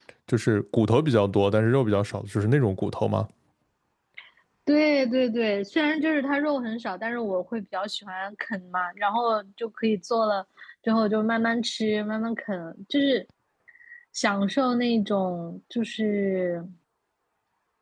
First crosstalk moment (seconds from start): none

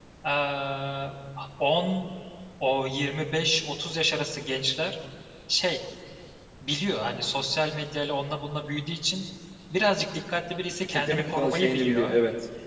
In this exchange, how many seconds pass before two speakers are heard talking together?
11 s

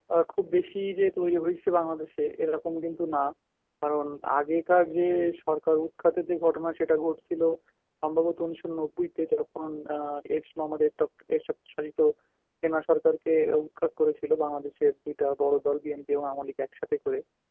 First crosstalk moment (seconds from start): none

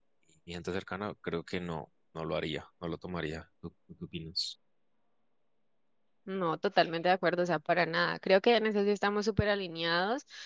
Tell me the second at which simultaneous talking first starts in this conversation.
none

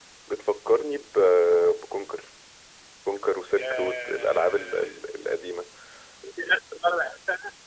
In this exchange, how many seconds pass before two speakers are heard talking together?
4 s

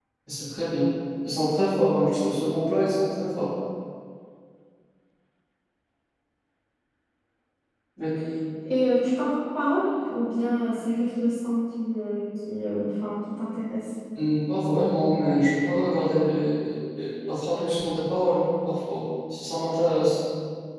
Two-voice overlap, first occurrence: none

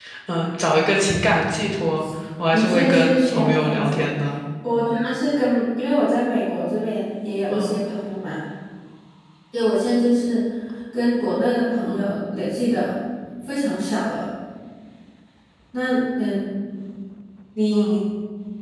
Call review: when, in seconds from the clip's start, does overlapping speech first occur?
3 s

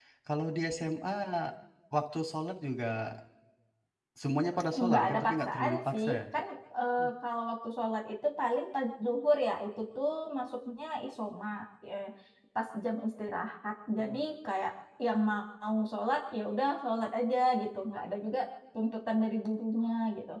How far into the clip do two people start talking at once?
5 s

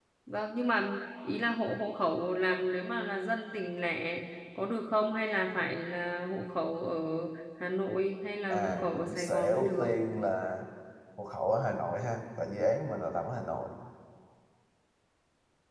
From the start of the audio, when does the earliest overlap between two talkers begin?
8 s

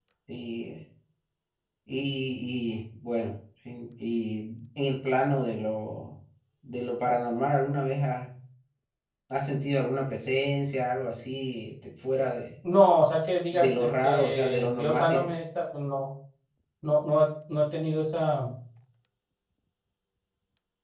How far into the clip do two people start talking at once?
14 s

